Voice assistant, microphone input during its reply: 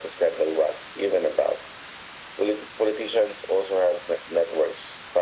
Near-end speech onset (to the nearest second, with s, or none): none